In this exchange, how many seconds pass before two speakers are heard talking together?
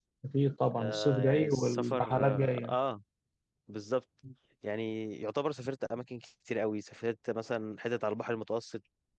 1 s

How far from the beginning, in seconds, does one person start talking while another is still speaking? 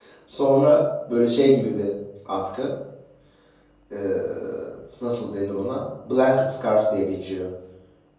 none

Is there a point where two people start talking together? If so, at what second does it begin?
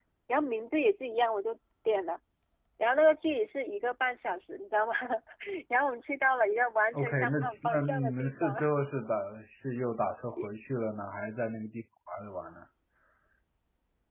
7 s

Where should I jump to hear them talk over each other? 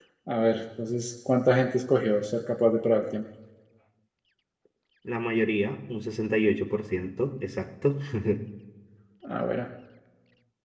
none

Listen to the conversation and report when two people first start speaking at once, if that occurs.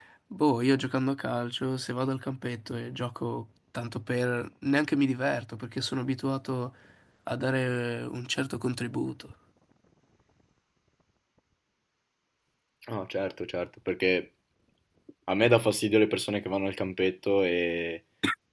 none

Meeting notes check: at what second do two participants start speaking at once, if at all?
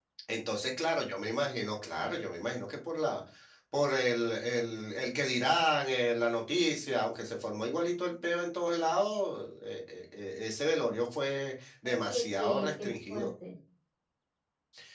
12 s

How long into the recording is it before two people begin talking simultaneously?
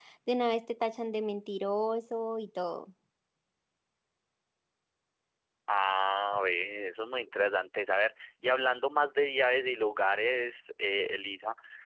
none

